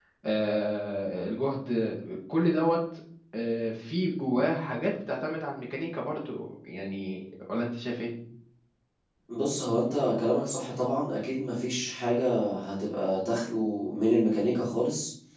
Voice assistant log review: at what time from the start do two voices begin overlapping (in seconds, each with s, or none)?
none